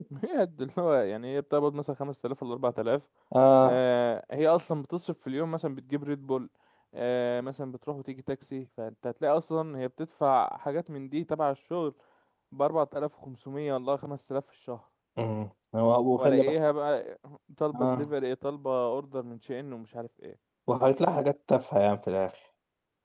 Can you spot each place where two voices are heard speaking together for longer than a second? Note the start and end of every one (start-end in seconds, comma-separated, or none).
none